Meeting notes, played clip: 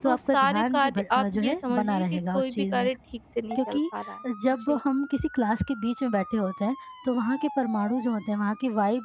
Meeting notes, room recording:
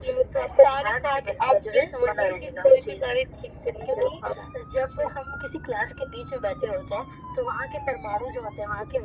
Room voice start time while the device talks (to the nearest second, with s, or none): none